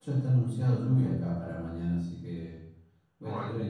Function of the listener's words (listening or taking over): listening